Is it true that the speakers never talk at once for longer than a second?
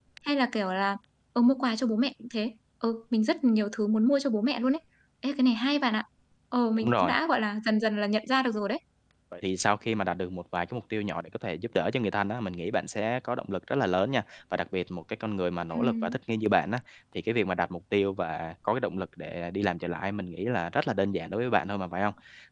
Yes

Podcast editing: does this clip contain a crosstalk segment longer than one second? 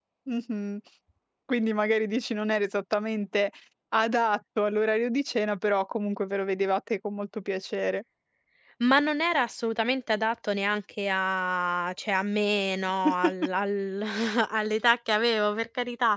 No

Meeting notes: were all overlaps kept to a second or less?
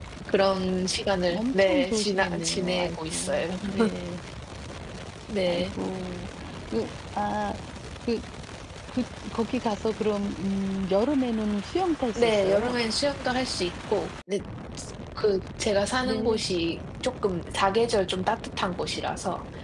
No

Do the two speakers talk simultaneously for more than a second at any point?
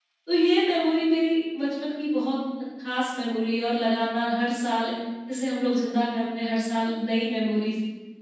No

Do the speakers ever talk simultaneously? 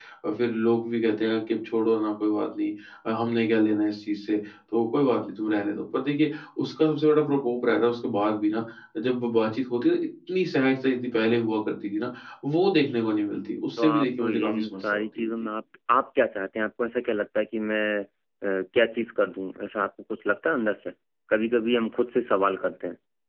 Yes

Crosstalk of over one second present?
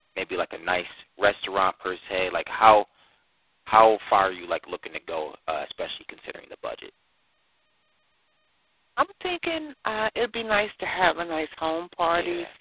No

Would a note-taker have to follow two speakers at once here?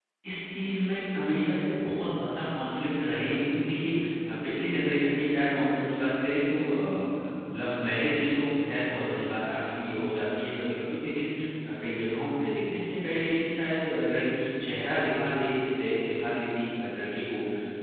No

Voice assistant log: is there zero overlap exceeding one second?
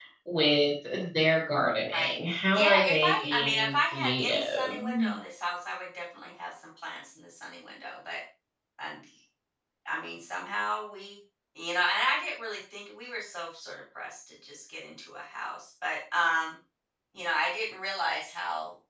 No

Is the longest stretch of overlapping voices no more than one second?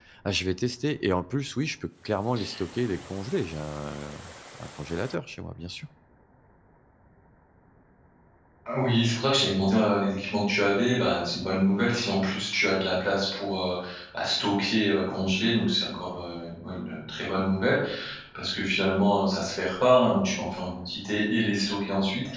Yes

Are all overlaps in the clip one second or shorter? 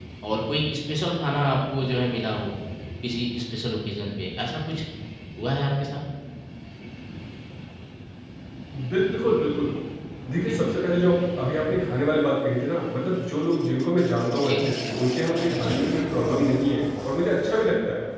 Yes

